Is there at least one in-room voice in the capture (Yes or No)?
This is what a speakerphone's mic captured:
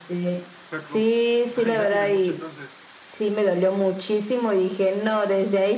Yes